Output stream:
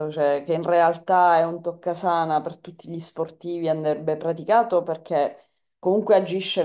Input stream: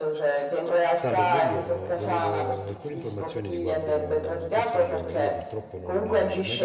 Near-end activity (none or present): present